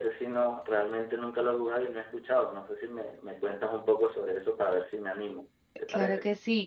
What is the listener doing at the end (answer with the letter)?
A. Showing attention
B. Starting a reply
B